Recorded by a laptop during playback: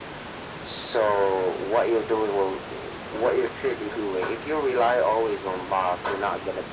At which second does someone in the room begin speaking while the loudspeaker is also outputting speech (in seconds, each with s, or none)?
none